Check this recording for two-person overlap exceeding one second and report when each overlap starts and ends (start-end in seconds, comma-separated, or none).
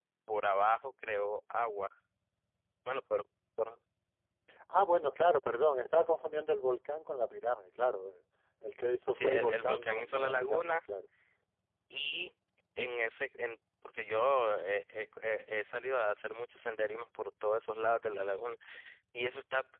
9.1-10.8